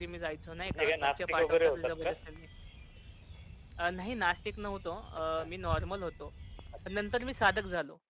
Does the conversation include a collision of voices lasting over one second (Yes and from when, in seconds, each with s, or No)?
Yes, from 0.6 s